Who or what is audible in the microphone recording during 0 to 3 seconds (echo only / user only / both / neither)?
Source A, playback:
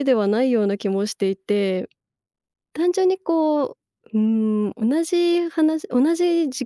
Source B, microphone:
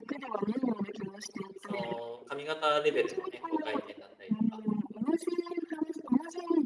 both